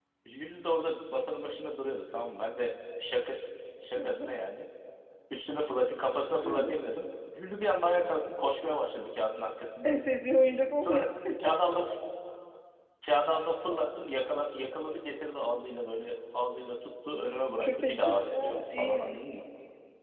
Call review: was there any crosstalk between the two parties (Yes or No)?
Yes